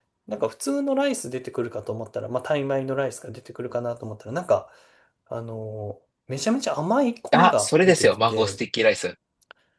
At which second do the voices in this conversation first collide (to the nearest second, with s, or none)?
7 s